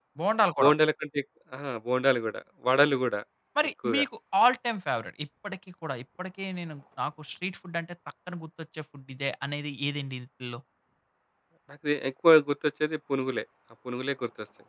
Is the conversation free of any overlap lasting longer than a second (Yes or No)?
Yes